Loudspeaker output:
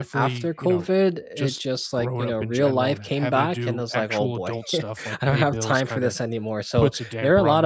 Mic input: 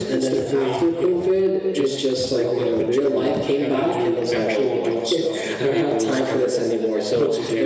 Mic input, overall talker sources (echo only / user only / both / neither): echo only